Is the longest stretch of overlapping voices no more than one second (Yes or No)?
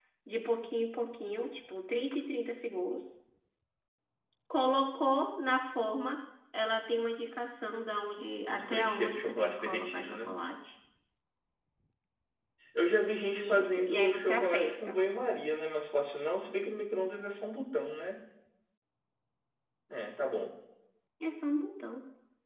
No